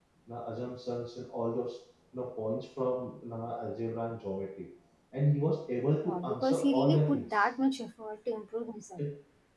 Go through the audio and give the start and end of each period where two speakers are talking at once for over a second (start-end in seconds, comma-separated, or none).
6.0-7.5